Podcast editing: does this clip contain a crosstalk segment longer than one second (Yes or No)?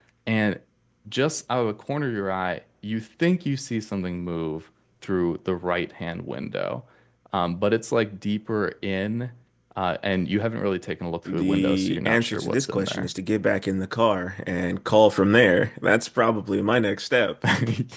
Yes